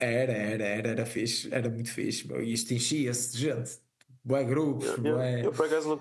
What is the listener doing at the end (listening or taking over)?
taking over